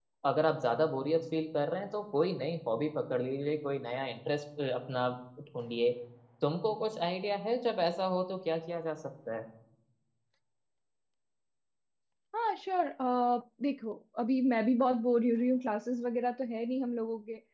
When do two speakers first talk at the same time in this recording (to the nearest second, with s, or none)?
none